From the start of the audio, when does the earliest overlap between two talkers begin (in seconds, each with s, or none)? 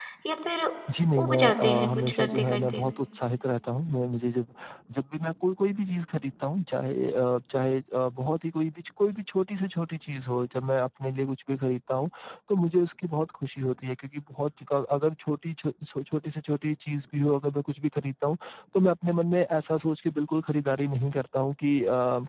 1.2 s